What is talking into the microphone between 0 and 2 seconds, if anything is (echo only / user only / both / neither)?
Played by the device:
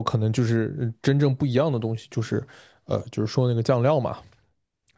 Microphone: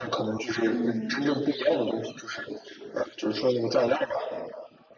both